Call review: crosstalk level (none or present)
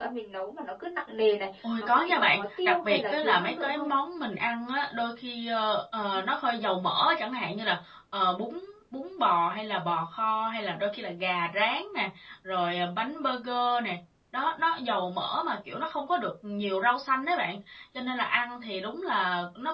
present